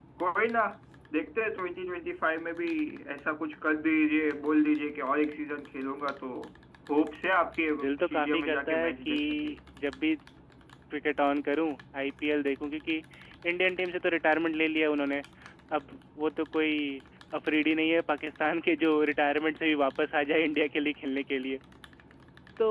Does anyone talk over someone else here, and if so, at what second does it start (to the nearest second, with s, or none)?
8 s